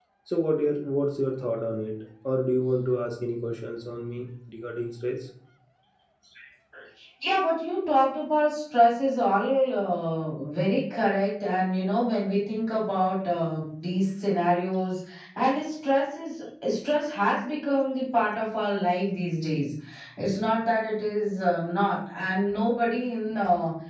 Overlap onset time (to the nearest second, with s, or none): none